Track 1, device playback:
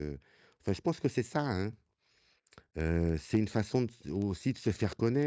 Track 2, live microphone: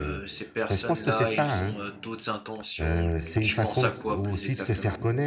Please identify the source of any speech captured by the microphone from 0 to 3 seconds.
both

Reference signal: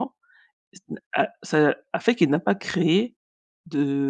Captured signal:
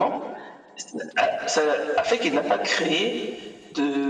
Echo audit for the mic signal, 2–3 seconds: echo only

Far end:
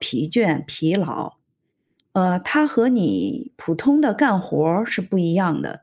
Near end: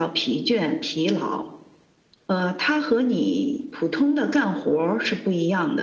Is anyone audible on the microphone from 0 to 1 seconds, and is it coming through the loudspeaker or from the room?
echo only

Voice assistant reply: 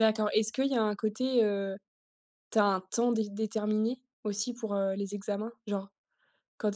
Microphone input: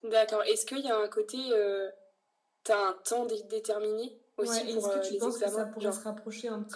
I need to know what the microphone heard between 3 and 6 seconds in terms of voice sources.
both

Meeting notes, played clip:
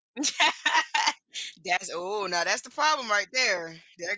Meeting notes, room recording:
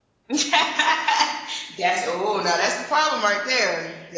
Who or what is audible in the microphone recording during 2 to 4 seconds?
echo only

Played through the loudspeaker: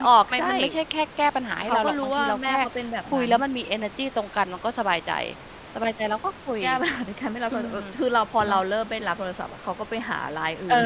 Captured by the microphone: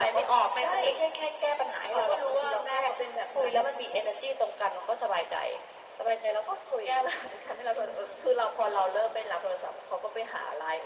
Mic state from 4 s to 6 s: echo only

